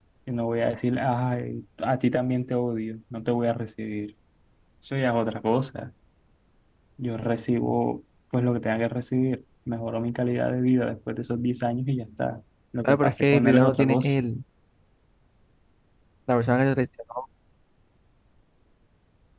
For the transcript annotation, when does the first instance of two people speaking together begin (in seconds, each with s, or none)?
12.8 s